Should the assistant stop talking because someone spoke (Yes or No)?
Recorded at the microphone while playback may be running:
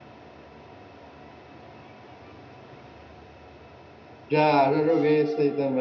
Yes